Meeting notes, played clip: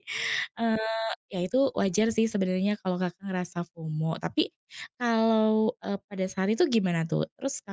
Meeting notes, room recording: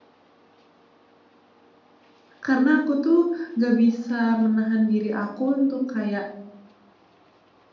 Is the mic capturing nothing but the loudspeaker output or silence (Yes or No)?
No